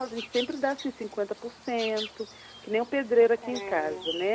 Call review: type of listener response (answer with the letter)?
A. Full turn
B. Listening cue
B